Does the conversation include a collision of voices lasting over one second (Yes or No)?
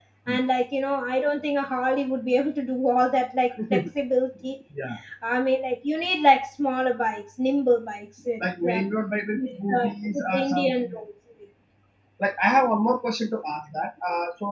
Yes